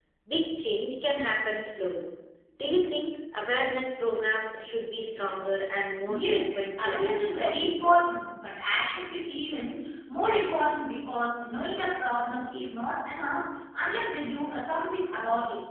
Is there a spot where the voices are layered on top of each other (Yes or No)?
Yes